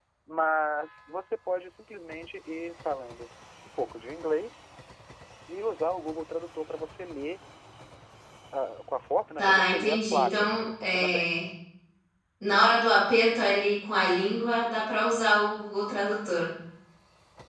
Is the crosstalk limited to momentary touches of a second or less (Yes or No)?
No